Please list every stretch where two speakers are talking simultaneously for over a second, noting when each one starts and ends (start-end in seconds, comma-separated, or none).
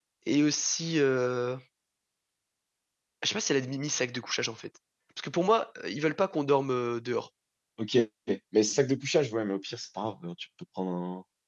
none